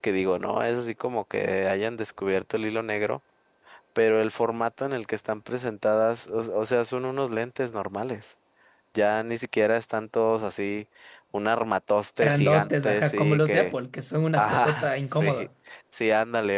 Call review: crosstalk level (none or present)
present